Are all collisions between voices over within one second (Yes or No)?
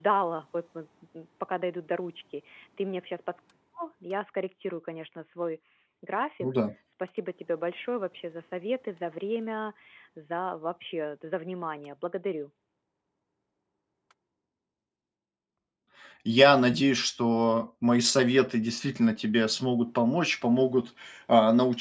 Yes